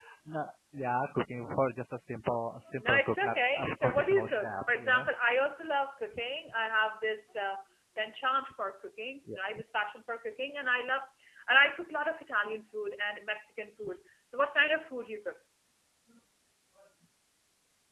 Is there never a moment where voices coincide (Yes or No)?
No